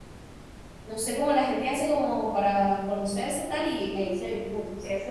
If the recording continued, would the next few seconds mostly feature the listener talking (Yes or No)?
Yes